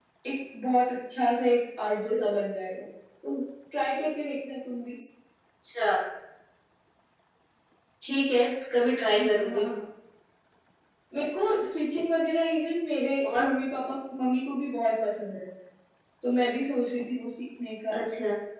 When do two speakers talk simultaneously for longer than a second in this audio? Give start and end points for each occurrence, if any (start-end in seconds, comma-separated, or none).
none